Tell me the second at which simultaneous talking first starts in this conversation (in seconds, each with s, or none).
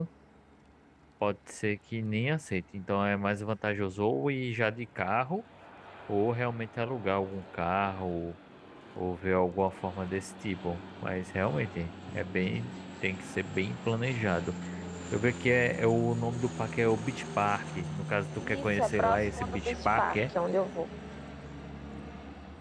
18.4 s